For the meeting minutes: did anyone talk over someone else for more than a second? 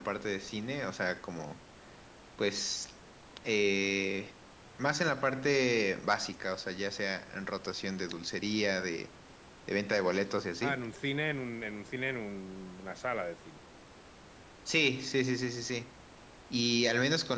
No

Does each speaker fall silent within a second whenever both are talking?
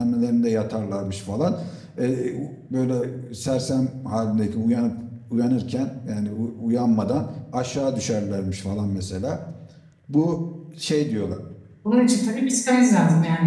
Yes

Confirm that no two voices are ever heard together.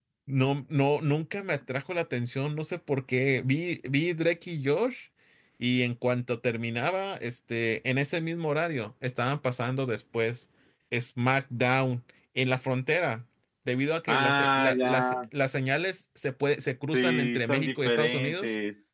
No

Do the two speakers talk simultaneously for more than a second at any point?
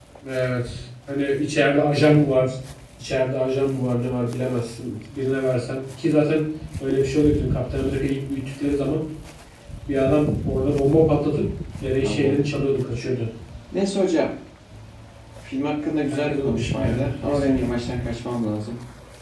Yes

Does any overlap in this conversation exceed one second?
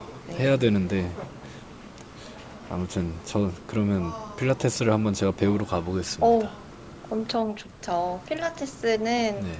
No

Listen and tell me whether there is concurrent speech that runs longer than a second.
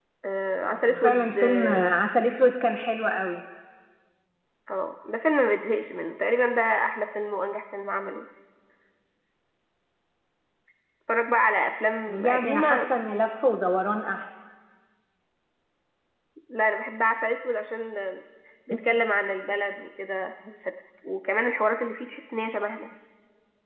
Yes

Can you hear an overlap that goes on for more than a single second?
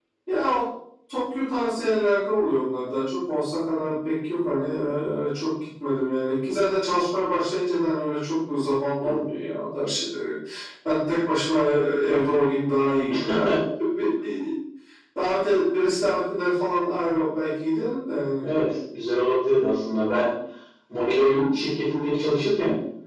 No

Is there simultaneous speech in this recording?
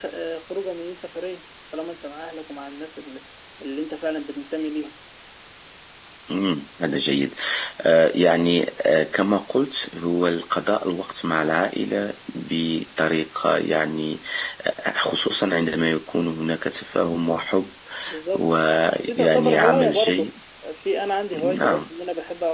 Yes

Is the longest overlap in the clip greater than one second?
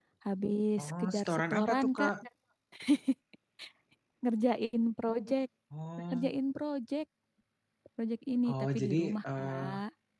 Yes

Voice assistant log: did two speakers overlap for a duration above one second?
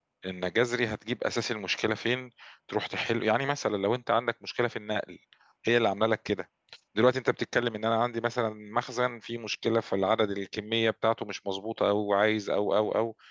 No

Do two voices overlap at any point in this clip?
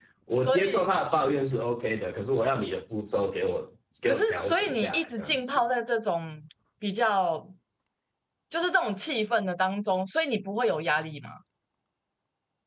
Yes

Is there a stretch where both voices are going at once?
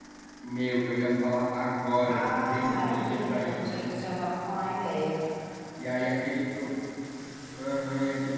Yes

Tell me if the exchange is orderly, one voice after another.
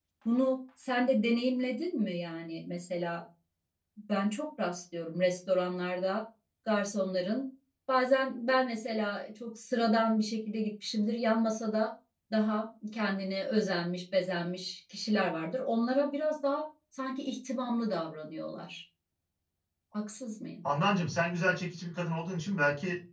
Yes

